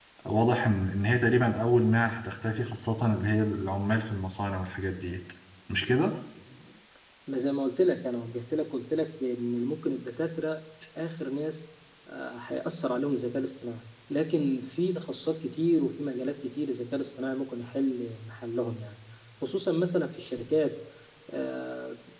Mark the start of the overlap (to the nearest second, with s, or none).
none